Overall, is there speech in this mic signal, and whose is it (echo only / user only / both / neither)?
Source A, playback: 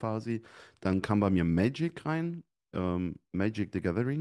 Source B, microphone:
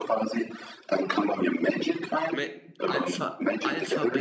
both